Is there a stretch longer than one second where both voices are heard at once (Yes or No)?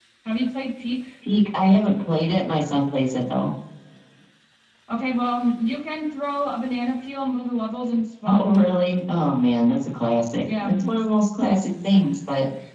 No